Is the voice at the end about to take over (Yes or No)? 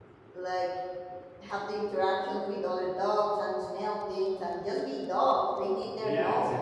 Yes